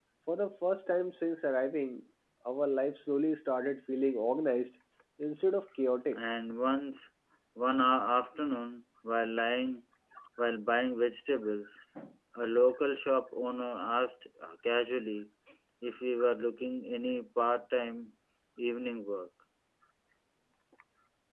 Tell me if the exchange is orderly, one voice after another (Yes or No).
Yes